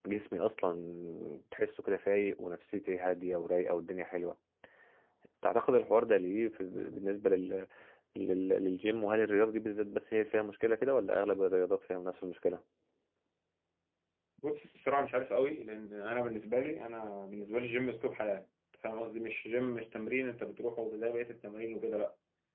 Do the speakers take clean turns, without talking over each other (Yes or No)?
Yes